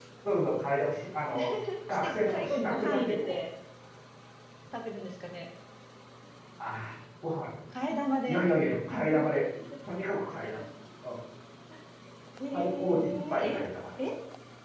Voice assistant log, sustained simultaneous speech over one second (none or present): present